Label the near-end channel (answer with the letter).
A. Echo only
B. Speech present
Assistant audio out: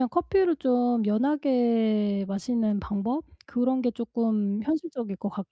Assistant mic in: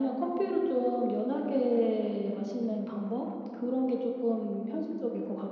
A